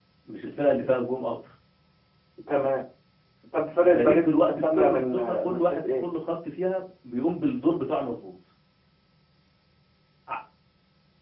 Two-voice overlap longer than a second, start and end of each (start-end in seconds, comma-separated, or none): 3.8-6.0